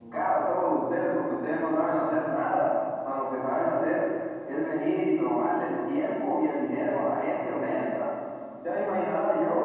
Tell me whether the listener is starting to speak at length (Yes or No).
No